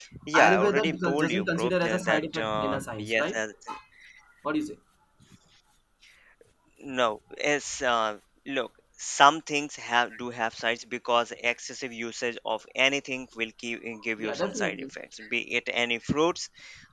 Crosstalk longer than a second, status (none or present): present